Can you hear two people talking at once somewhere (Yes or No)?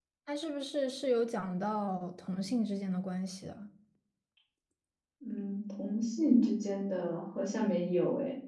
No